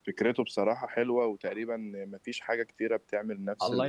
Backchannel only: No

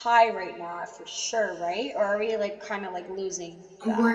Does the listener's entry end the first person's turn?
Yes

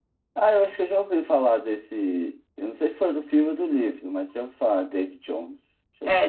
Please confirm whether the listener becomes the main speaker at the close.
Yes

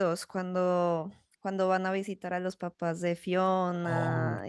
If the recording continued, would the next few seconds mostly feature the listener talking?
Yes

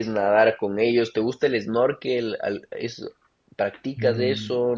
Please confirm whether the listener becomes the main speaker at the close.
Yes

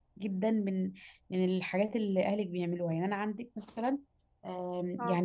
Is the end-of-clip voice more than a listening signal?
No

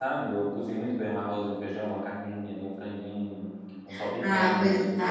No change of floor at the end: No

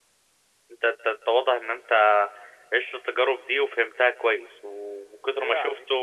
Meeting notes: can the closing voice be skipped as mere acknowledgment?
Yes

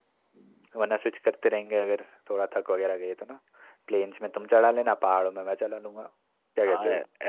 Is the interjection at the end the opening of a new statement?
Yes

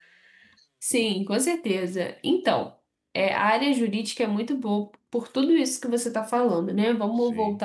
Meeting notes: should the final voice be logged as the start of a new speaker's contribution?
No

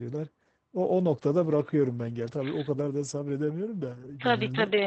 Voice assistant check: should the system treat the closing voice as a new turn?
Yes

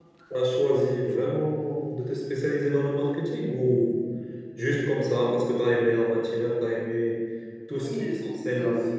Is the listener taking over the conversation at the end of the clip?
Yes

